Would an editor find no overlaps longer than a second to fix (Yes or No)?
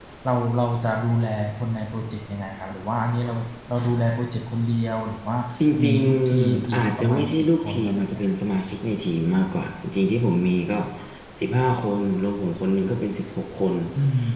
No